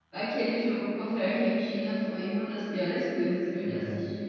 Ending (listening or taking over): listening